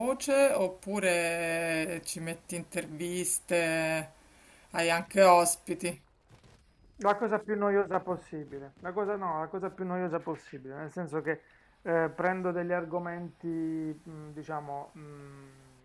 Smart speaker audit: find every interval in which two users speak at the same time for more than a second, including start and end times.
none

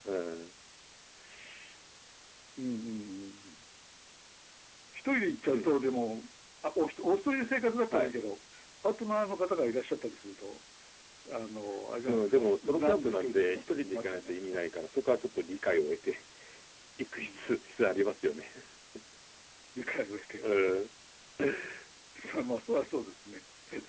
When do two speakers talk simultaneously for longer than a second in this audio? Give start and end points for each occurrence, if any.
12.1-14.6

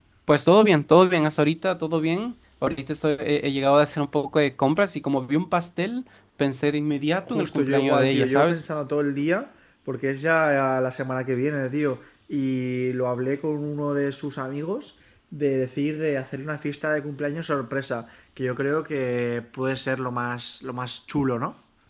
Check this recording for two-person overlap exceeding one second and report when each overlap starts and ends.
7.3-8.6

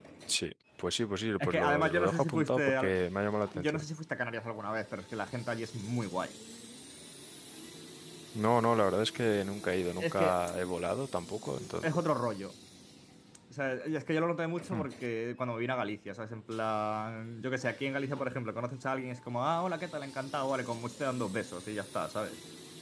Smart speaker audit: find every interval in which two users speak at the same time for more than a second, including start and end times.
1.4-2.9

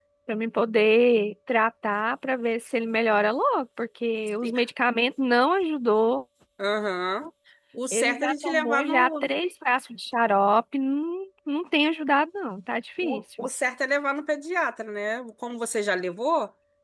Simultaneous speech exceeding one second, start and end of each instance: 7.9-9.3

